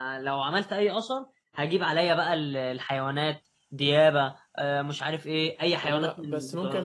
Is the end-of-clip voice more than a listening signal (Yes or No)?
Yes